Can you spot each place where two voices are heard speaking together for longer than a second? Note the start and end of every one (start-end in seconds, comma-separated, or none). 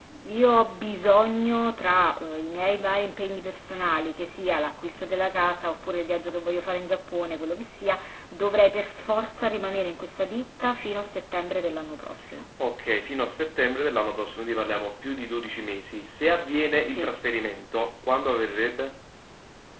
none